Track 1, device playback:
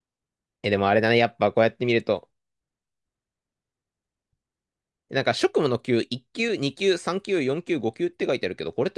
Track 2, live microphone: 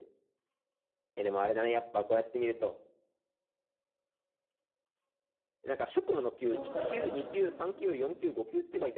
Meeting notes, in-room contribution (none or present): present